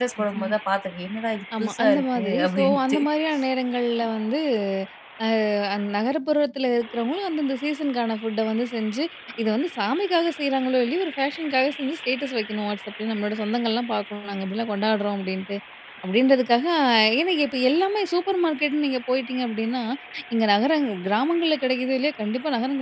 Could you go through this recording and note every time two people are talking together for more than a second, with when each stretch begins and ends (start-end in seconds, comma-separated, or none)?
1.6-3.0